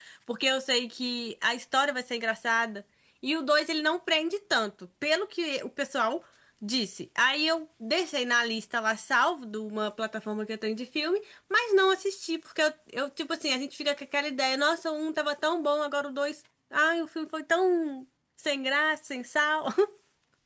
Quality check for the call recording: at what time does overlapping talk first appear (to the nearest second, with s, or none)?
none